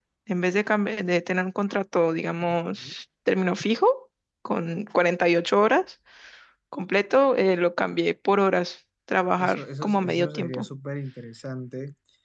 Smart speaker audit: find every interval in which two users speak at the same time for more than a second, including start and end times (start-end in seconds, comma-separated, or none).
9.4-10.7